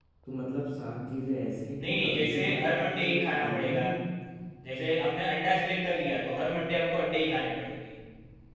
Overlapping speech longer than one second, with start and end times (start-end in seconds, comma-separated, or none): 1.8-3.8